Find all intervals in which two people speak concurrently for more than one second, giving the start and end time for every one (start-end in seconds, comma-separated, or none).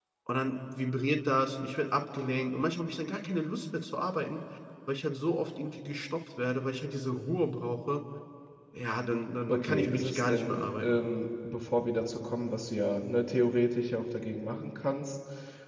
9.5-11.0